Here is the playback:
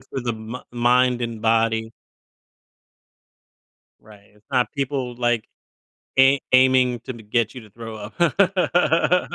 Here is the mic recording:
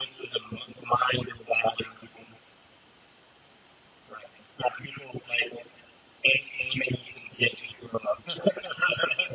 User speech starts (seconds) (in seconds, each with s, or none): none